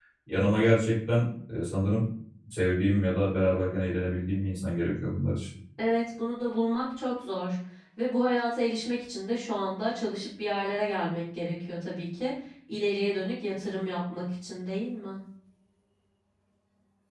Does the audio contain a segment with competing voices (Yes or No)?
No